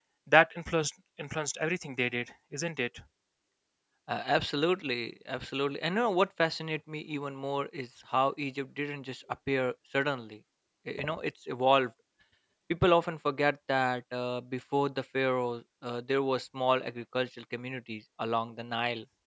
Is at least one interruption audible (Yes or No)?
No